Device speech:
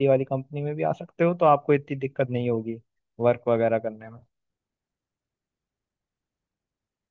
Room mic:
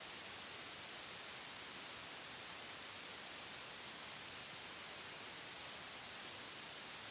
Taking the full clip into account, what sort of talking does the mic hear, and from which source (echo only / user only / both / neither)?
neither